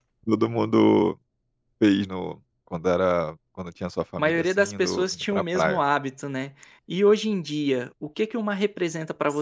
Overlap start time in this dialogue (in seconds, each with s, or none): 4.2 s